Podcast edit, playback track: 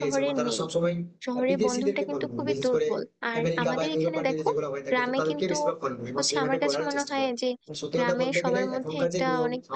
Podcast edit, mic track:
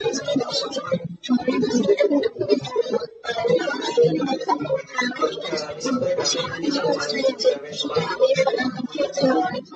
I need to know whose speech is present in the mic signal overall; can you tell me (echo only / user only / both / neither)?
both